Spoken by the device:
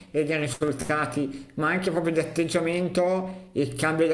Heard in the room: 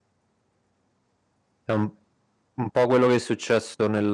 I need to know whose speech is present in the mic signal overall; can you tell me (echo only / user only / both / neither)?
user only